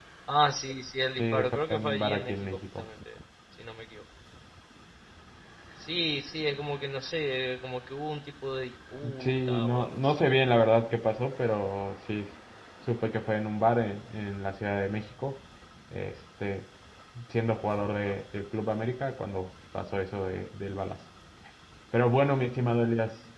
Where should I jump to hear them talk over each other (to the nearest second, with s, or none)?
1 s